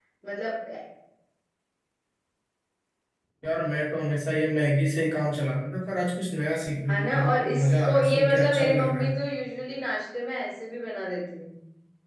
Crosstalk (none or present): present